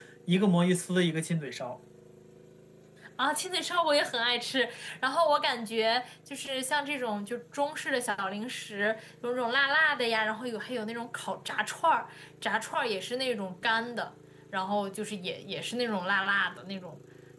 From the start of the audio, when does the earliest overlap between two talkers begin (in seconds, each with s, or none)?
none